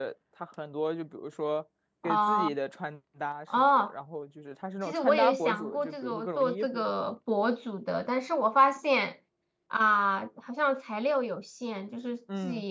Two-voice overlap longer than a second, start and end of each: 4.9-6.8

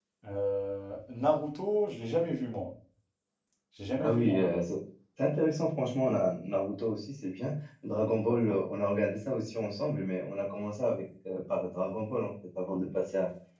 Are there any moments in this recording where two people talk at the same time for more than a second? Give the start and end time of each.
none

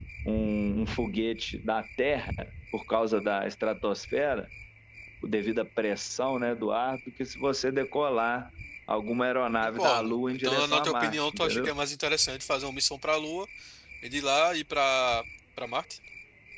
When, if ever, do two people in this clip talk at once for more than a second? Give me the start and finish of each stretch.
9.6-11.7

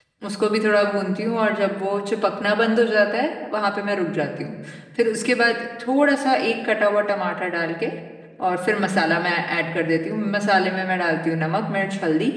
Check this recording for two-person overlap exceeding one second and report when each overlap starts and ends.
none

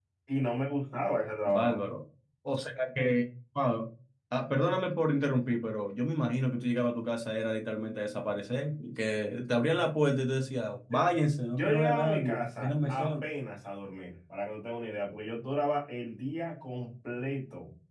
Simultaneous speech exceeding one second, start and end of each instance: 11.5-13.1

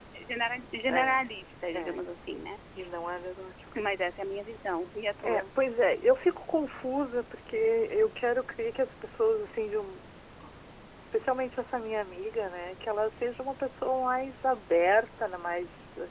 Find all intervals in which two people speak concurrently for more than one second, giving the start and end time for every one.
none

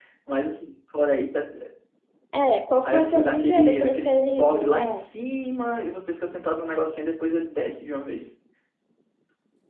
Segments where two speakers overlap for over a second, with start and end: 2.8-5.1

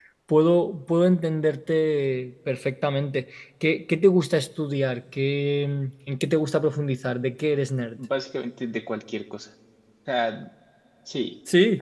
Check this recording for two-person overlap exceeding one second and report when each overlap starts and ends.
none

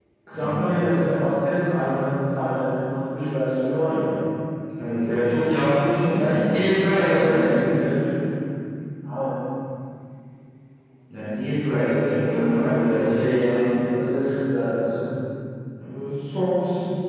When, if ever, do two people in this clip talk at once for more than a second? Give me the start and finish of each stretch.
6.0-7.6, 11.8-13.6

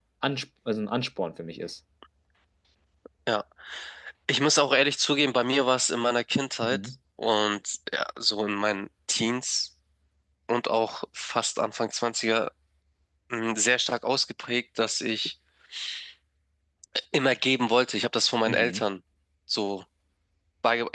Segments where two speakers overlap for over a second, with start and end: none

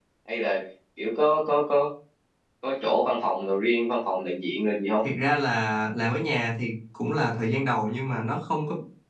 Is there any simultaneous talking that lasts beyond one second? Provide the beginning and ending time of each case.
none

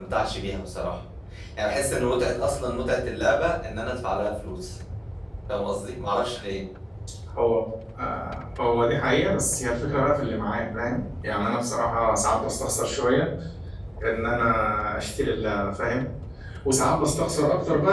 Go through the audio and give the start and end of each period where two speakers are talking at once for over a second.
none

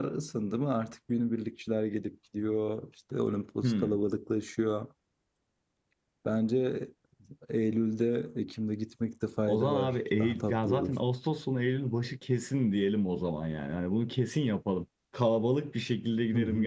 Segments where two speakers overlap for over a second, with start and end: 9.5-11.0

